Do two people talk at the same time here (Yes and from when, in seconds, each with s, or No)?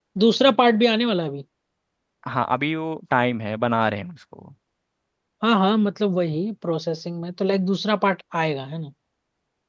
No